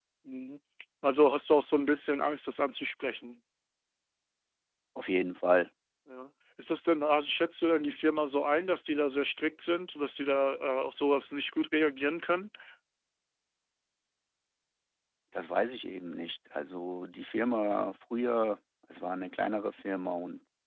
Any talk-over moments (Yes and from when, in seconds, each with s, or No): No